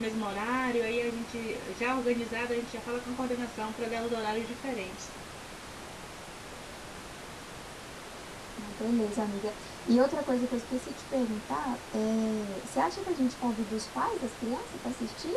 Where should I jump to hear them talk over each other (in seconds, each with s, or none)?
none